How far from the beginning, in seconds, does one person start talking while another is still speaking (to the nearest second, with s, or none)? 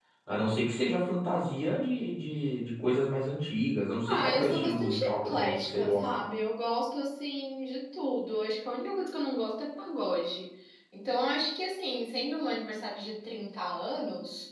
4 s